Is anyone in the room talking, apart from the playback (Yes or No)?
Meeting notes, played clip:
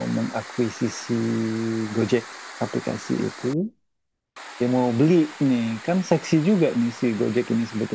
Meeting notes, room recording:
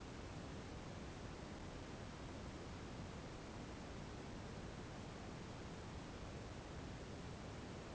No